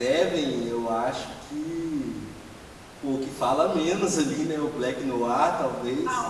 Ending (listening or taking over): taking over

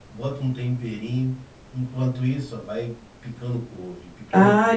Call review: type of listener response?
taking over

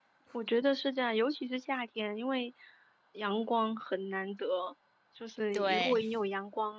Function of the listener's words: listening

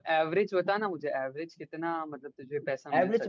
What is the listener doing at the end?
taking over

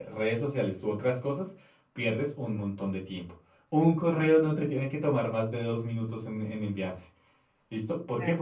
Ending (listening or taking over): listening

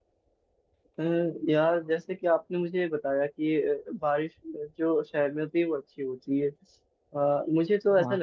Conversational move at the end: listening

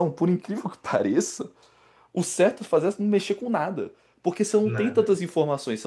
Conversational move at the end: listening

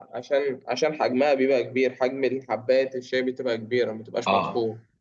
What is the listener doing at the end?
taking over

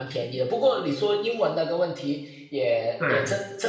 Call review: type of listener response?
listening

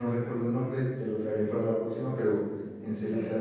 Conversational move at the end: listening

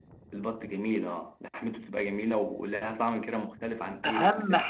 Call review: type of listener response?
taking over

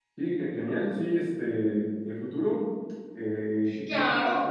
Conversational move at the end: taking over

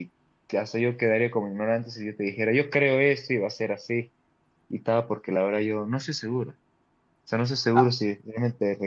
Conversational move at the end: listening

